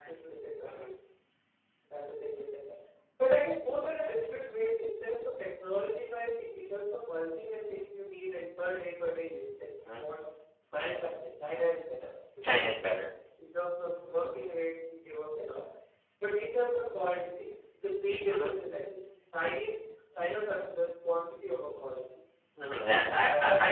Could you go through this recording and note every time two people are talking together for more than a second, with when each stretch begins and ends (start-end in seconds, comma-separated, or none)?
none